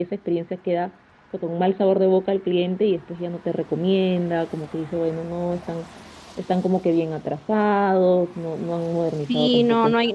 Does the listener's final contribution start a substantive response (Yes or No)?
Yes